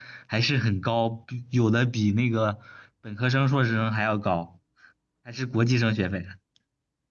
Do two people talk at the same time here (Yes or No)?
No